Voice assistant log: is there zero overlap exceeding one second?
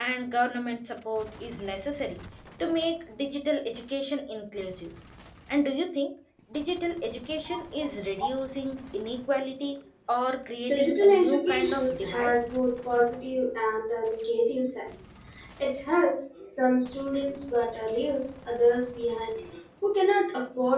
No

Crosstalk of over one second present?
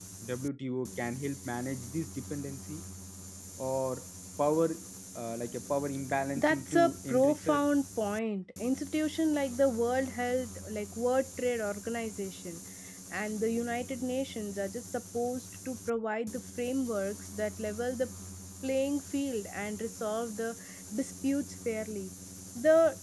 Yes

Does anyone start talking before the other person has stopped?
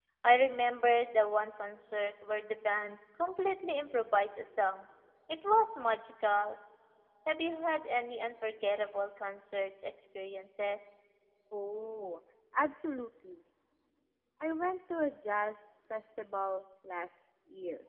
No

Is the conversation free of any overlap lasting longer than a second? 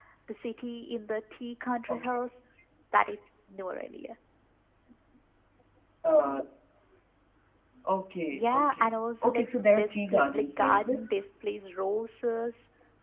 No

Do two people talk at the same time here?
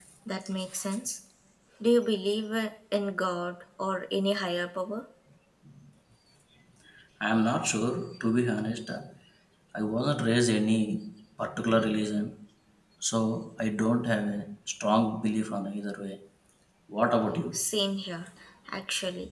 No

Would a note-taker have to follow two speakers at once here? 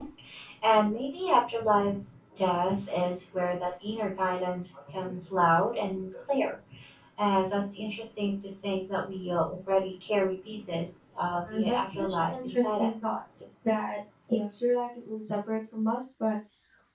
Yes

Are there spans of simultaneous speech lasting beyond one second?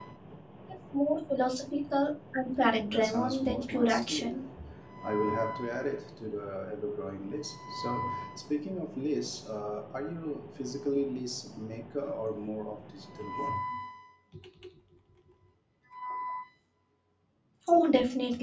Yes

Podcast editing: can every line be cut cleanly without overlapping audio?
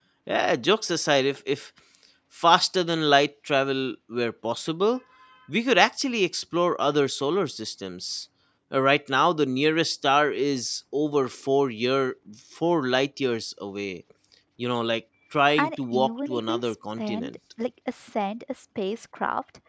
No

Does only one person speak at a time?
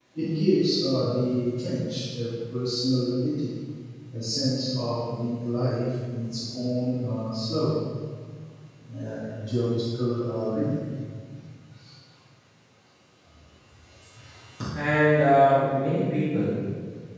Yes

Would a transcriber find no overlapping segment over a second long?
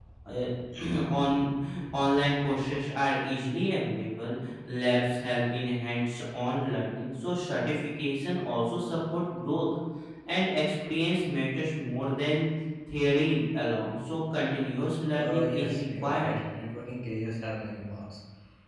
No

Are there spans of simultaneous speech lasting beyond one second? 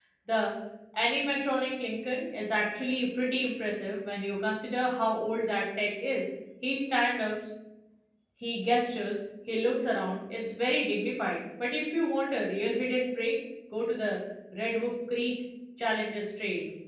No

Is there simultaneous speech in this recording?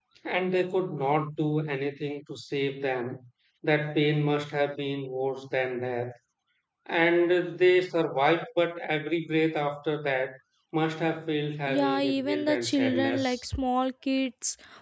Yes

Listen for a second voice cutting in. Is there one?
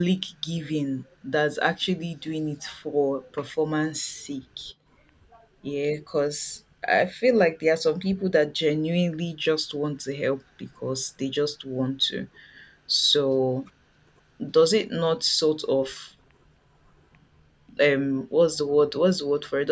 No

